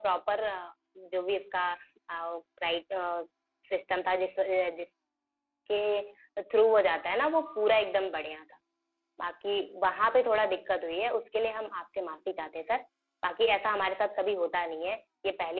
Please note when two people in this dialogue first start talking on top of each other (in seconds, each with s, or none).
none